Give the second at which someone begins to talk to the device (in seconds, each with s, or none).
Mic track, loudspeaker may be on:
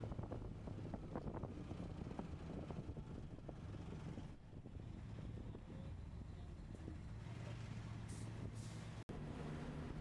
none